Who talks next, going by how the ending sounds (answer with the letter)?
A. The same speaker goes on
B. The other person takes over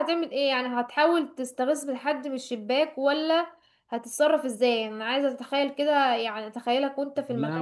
B